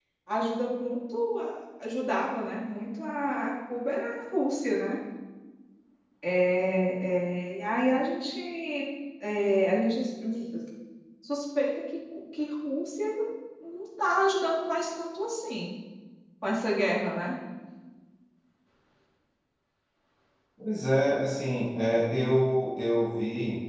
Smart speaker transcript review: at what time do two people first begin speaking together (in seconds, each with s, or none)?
none